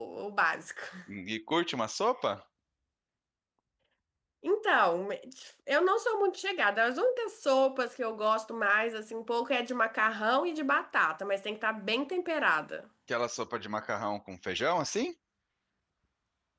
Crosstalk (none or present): none